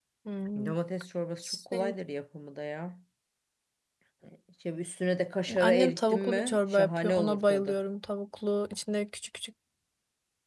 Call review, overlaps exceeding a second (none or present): present